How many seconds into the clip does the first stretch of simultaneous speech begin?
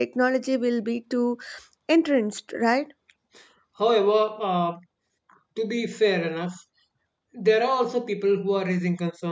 none

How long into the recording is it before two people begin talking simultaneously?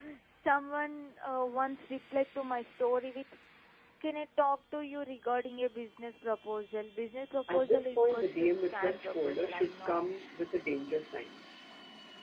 7 s

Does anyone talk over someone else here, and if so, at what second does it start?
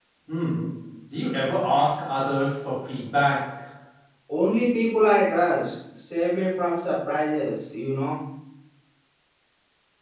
none

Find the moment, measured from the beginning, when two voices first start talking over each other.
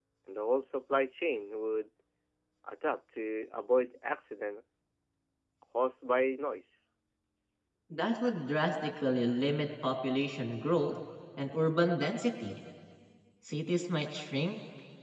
none

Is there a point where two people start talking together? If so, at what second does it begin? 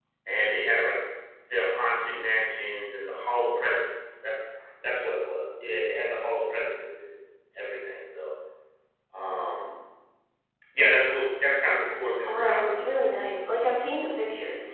12 s

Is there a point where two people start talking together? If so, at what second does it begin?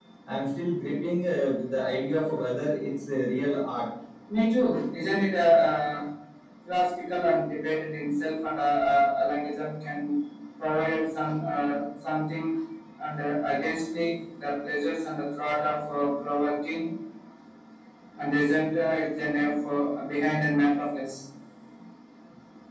none

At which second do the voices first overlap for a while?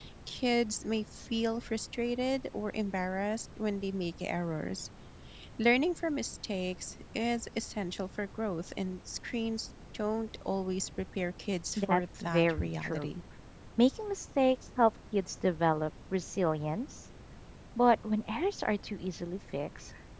12 s

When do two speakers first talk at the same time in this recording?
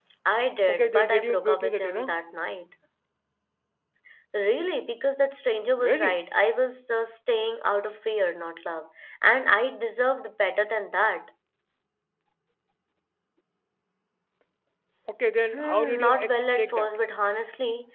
1 s

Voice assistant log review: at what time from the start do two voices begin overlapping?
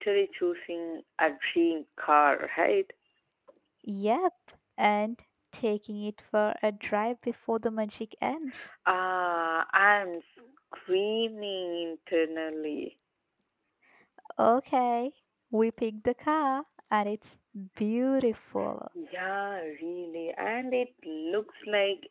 none

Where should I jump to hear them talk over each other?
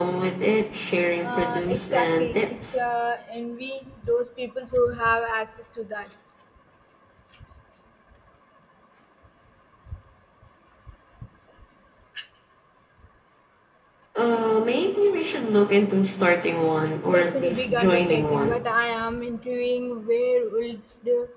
1 s

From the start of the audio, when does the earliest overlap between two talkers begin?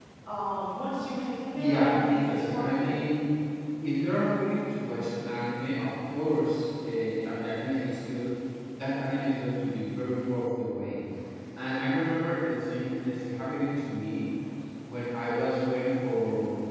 2 s

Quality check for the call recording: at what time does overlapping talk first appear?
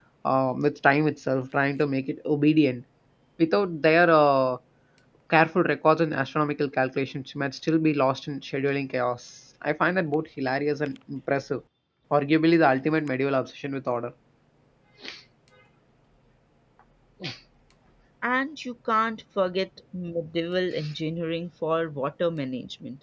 none

